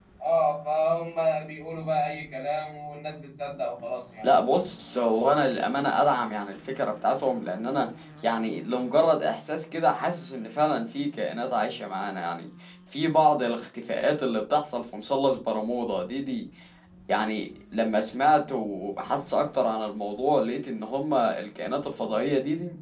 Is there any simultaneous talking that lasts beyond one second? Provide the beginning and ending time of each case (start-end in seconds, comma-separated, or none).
none